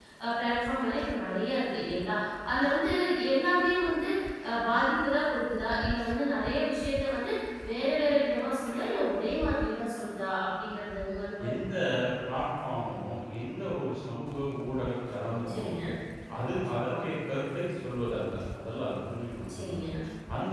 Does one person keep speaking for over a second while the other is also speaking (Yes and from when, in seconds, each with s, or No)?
No